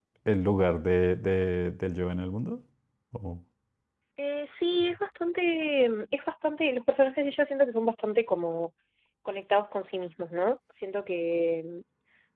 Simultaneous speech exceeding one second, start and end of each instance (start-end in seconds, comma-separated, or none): none